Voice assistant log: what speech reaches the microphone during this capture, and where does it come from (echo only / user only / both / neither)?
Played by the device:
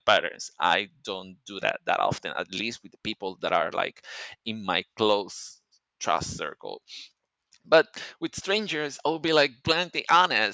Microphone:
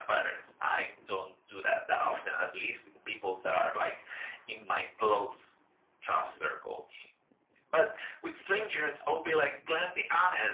echo only